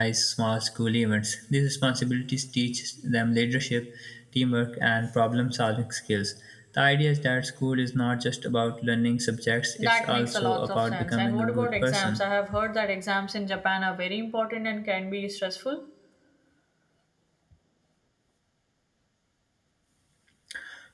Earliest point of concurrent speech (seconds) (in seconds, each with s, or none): 9.8 s